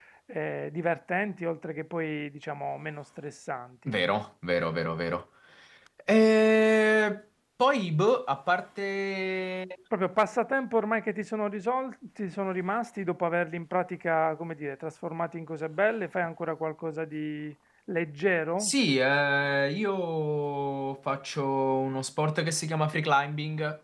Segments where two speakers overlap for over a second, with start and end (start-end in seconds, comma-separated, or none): none